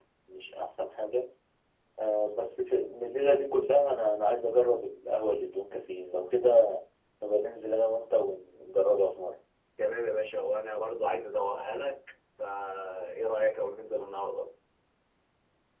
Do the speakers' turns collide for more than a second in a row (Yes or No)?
No